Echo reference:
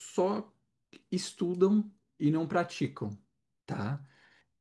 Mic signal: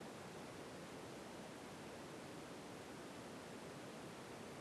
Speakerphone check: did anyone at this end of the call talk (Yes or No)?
No